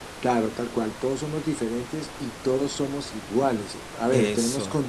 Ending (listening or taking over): listening